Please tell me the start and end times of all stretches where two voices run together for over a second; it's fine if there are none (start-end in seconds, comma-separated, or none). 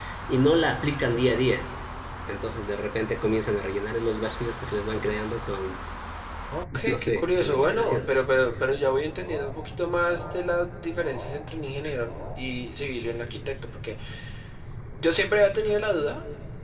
6.8-8.1